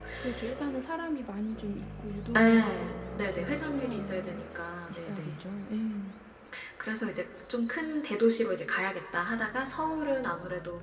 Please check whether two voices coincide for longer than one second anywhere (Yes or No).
Yes